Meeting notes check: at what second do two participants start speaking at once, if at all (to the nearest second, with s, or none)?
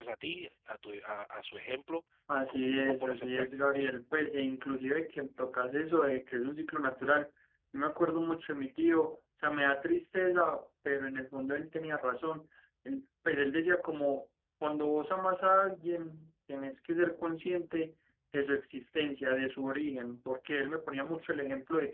2 s